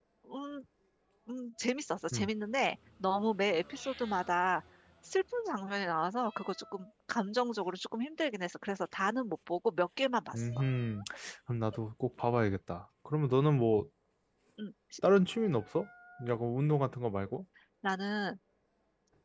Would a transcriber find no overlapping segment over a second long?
Yes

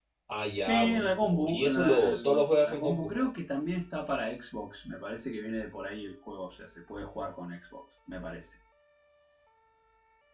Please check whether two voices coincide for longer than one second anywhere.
Yes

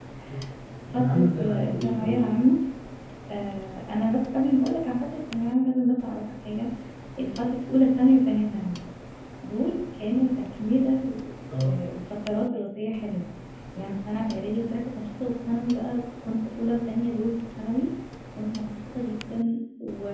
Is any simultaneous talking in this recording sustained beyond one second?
Yes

